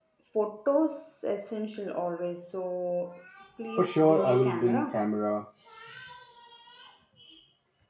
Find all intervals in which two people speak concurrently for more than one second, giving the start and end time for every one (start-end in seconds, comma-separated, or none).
3.7-5.0